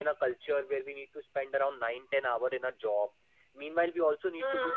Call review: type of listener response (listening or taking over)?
listening